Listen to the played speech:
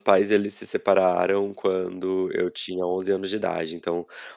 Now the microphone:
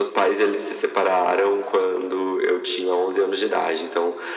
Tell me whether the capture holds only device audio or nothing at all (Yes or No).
Yes